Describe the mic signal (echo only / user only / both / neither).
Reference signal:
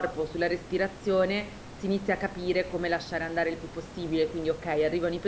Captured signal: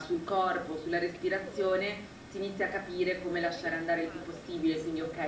both